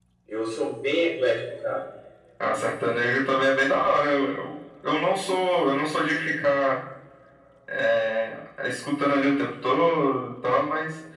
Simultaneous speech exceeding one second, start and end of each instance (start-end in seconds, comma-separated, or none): none